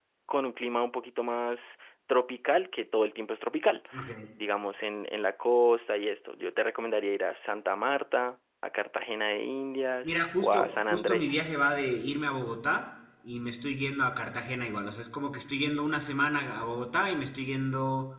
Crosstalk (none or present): present